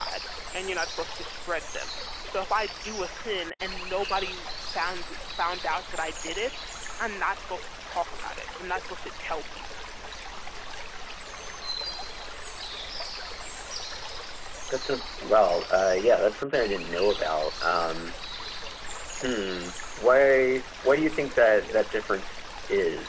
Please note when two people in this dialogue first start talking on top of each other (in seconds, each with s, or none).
none